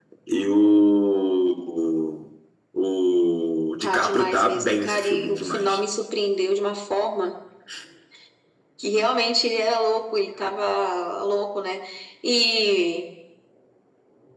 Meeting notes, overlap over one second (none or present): present